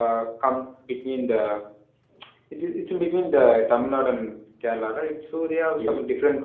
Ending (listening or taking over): listening